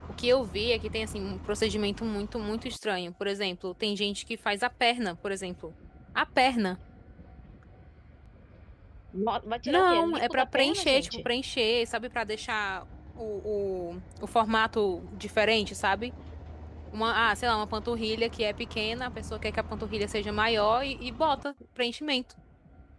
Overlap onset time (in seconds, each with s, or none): 9.6 s